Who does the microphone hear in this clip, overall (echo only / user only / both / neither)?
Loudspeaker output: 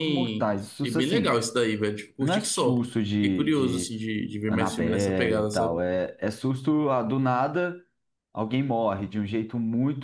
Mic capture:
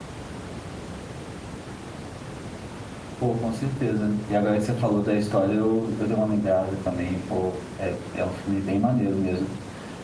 user only